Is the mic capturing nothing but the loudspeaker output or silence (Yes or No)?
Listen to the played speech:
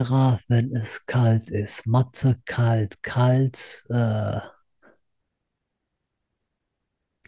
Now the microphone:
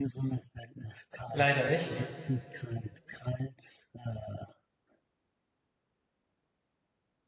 No